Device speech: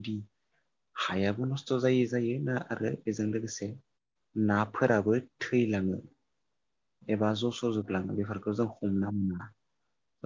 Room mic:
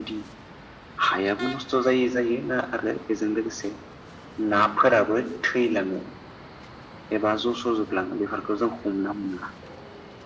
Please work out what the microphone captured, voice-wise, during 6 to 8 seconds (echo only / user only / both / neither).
echo only